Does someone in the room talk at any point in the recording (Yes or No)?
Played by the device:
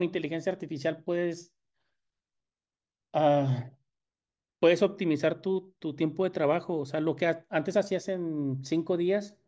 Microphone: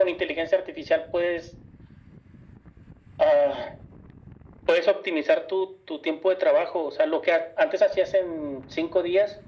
No